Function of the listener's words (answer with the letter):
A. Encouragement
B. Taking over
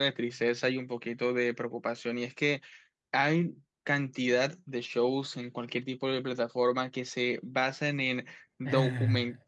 A